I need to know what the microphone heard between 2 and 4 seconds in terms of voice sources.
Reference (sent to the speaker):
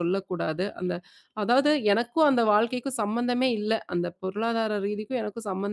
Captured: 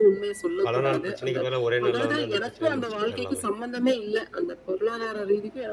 both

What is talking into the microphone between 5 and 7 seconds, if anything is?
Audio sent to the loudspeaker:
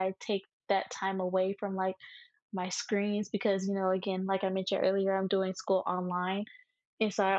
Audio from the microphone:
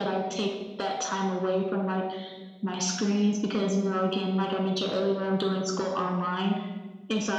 echo only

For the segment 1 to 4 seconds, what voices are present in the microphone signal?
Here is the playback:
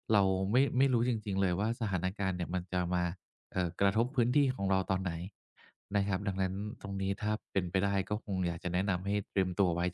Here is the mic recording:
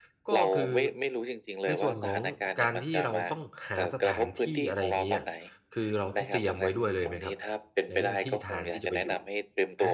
both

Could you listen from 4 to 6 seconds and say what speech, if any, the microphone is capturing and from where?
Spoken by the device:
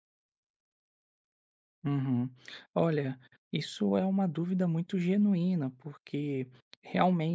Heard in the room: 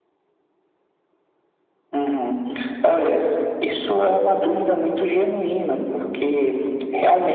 echo only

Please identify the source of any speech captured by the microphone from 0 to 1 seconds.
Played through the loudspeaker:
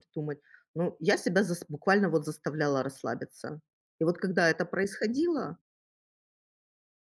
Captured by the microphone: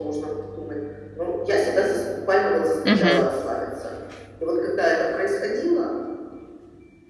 echo only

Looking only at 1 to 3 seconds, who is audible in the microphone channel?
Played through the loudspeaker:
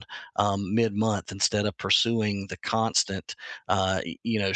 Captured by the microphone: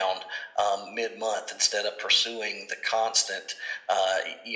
echo only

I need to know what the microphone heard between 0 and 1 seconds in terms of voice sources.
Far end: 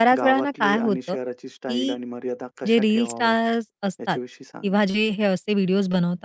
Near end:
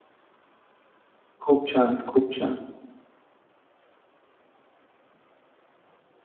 neither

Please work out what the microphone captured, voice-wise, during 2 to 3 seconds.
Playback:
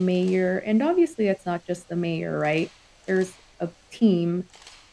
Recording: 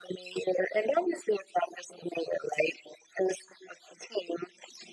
echo only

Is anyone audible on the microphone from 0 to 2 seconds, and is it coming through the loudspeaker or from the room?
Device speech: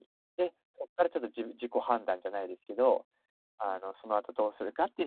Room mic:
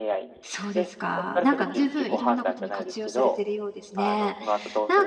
both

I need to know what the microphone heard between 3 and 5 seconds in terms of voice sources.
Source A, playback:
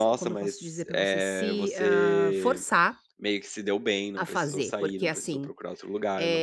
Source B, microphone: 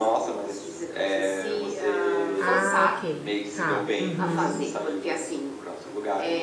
both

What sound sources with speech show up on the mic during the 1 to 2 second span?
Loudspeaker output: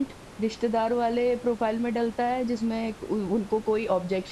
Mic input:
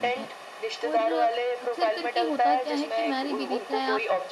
both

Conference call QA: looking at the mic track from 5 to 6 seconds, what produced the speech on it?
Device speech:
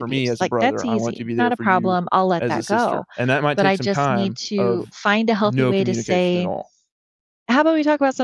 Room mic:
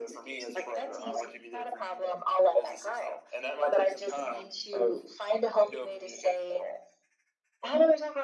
echo only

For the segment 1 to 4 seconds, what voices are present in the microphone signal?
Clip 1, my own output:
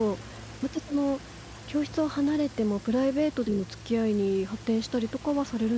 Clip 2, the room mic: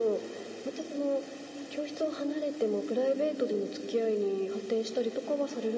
echo only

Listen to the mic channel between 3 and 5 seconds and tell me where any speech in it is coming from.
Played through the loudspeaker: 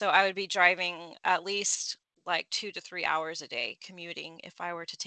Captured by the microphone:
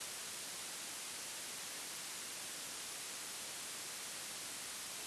neither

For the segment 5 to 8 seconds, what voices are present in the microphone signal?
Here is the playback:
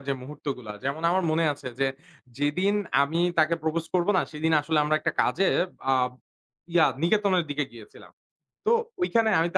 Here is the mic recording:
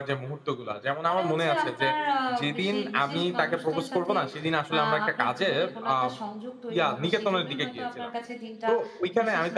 both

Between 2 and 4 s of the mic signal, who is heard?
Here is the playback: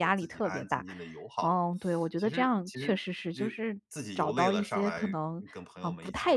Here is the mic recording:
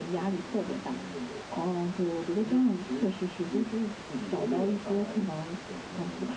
echo only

